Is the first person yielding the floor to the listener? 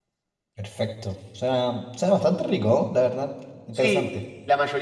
Yes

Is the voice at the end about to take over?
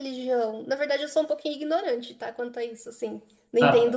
Yes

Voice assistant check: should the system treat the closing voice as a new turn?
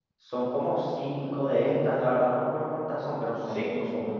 No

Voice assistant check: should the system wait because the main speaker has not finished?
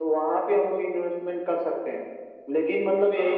Yes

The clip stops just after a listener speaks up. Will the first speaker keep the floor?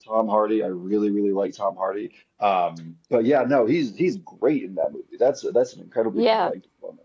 No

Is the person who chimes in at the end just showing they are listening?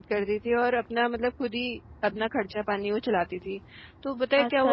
Yes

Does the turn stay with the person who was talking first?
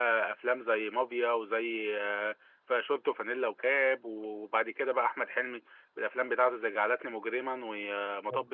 Yes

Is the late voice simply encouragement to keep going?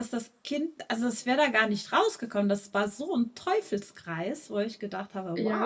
No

